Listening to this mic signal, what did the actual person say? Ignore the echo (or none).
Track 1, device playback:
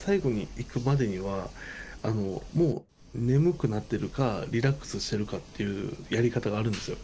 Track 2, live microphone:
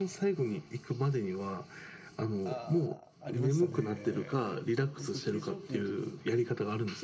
ああ、ありましたね。僕、非常勤の時に